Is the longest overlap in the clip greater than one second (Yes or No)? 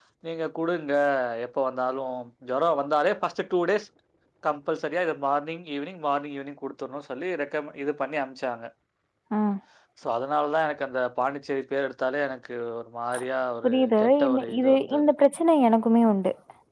Yes